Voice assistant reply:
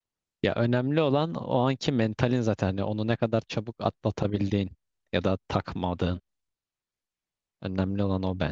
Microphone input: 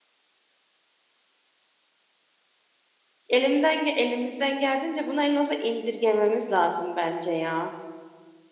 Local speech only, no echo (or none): elimden ge- elimizden geldiğince bunu en aza indirgememiz lazım bence ya.